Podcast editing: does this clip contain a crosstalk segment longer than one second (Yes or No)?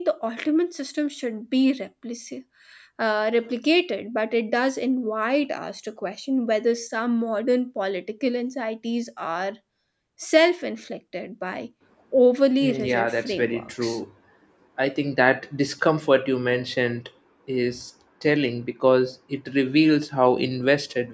Yes